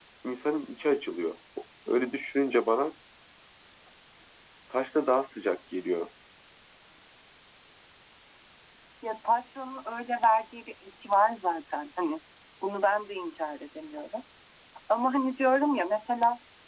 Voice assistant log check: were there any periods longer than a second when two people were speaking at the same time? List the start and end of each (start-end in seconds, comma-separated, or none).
none